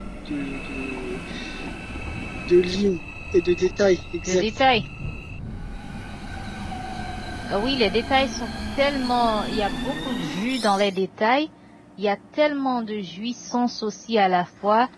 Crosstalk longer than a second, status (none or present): none